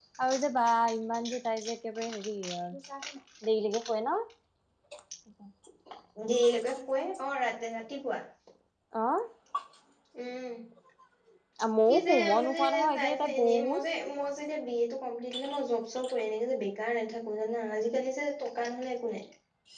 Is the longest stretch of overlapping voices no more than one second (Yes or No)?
No